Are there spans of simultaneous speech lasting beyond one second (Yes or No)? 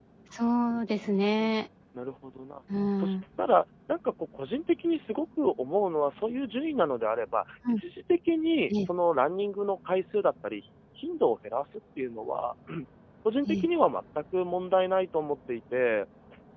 No